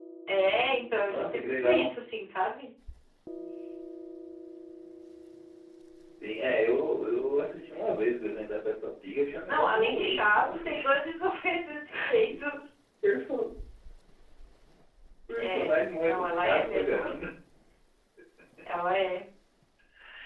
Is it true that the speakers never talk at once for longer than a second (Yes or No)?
No